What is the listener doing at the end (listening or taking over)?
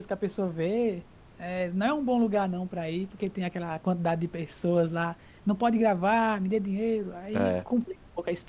listening